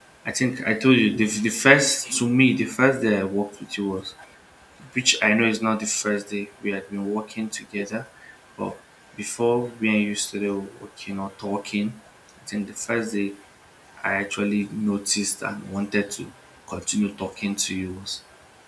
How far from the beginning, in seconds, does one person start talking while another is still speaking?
none

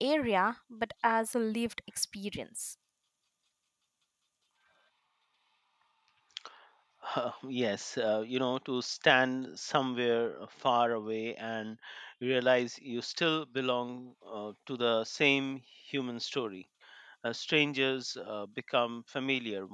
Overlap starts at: none

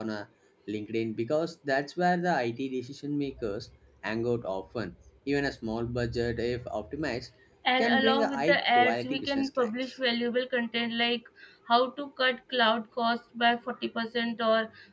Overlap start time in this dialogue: 7.8 s

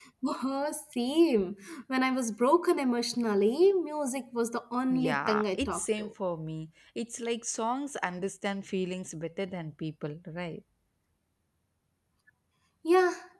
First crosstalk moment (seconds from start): 4.9 s

